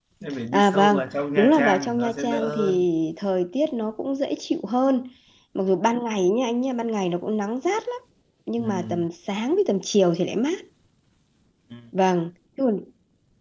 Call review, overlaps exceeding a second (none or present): present